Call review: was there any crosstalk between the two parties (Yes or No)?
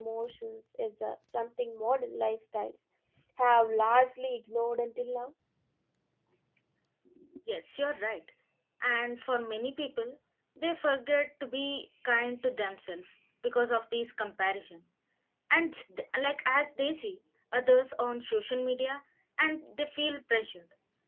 No